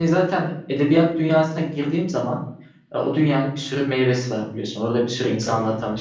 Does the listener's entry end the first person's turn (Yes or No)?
No